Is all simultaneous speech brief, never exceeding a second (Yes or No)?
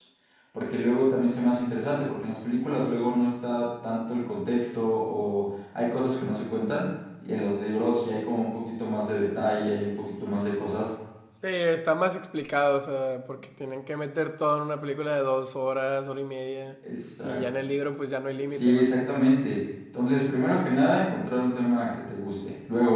Yes